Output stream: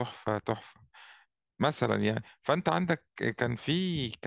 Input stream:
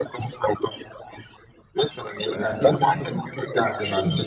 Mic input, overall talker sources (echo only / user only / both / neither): both